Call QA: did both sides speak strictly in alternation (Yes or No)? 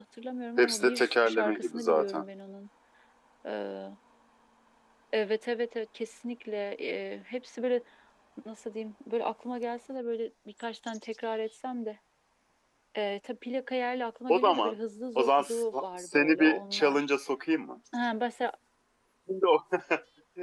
No